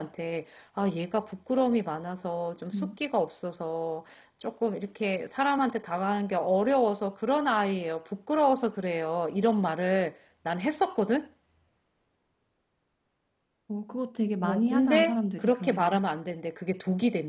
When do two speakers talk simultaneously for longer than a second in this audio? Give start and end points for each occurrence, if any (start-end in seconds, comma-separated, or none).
14.4-16.0